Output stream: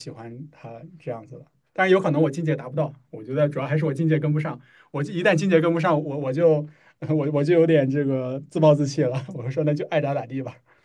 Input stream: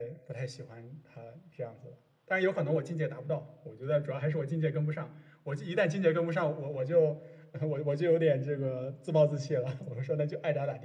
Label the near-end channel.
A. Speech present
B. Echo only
B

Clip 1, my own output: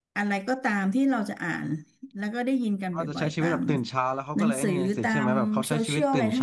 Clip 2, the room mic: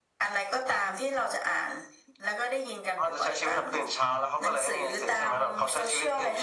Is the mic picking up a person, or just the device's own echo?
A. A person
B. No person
B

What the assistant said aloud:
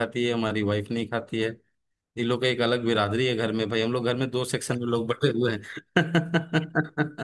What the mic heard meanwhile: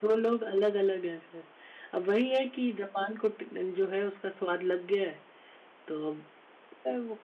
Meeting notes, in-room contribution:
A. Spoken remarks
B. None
A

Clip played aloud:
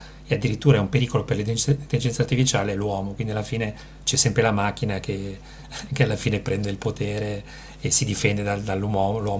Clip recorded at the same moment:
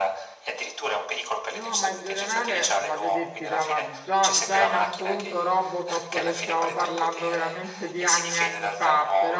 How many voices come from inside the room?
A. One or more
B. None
A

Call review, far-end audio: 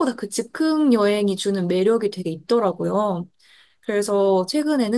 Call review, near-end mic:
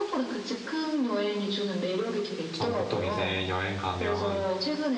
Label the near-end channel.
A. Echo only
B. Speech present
B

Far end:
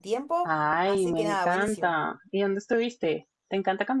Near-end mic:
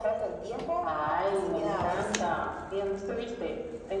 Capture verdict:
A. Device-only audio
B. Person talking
A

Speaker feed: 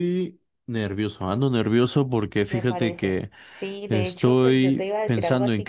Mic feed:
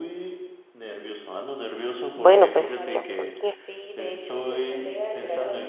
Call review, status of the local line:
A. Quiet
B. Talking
B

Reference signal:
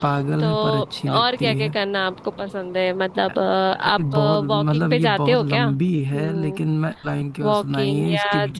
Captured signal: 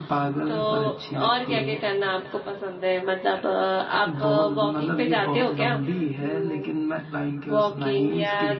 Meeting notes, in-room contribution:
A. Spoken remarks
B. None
B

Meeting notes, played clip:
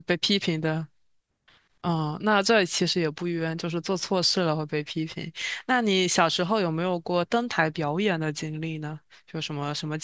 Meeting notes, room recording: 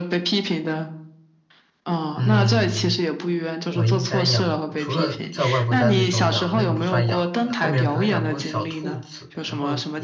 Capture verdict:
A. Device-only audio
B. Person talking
B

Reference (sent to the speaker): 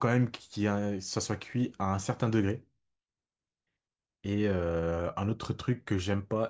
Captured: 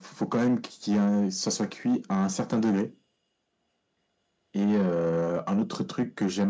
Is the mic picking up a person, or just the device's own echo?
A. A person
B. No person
B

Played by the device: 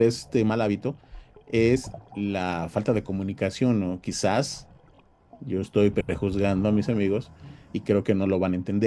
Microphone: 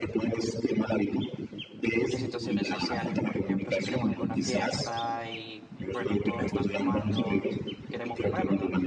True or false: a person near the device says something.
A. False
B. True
B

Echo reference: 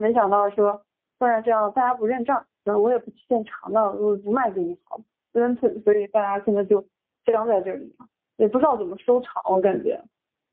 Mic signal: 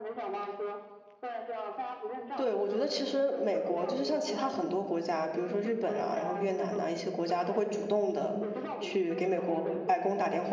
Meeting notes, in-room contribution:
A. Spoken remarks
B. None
A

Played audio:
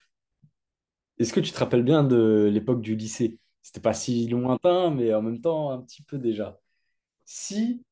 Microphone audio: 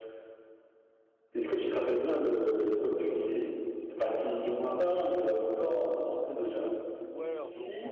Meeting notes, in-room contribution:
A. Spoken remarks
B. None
A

